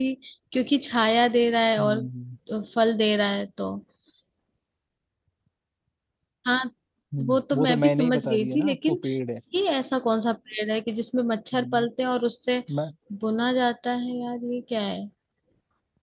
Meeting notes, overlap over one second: present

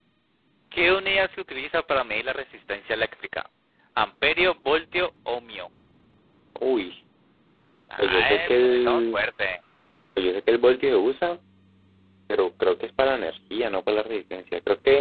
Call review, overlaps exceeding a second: present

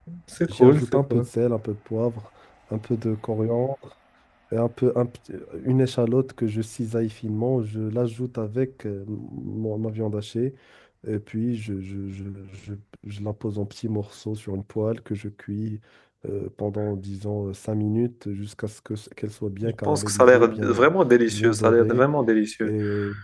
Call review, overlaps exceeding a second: present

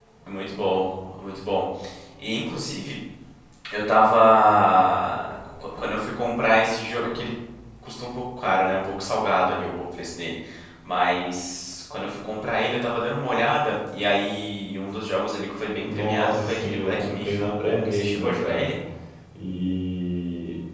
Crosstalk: present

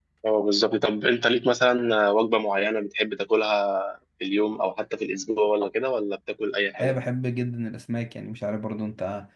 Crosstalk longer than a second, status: none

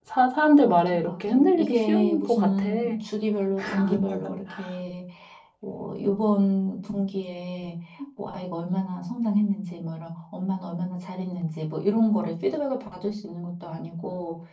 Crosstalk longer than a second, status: present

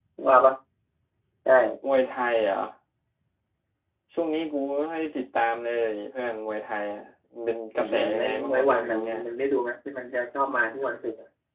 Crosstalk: present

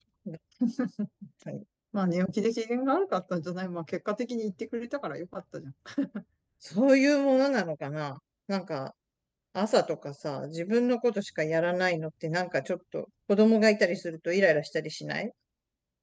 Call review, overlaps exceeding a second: none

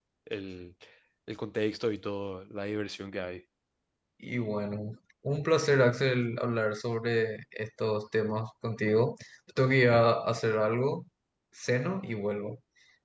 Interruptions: none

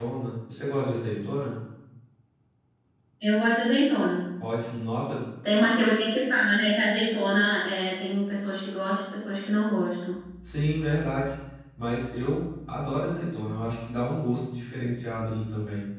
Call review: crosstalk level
none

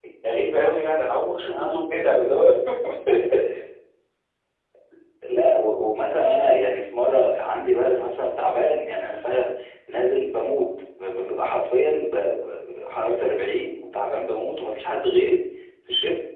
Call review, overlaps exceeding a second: none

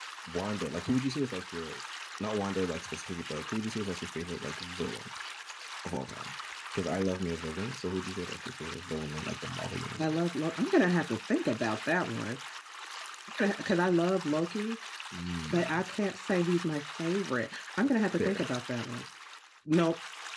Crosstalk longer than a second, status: none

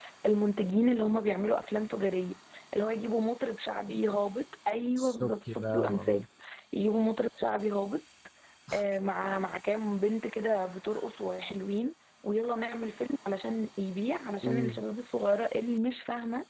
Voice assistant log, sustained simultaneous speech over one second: present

